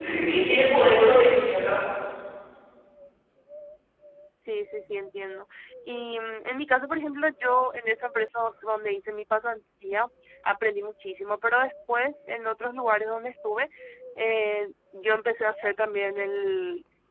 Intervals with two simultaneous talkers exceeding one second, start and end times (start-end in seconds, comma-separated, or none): none